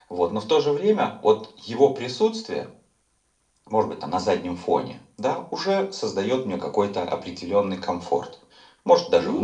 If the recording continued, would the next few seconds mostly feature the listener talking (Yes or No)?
No